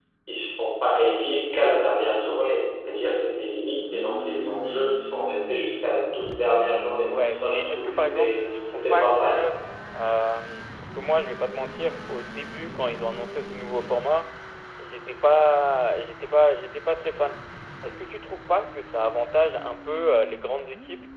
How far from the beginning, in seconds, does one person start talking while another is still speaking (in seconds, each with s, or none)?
7.1 s